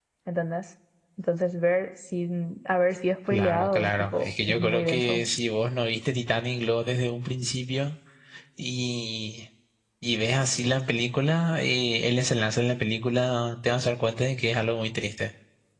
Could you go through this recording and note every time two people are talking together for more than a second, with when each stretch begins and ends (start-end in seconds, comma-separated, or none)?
3.3-5.2